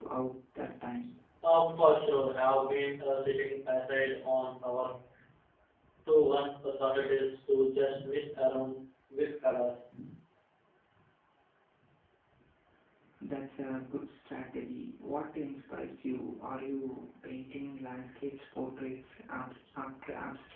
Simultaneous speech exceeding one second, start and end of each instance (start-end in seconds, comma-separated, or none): none